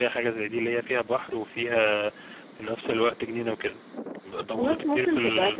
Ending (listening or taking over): taking over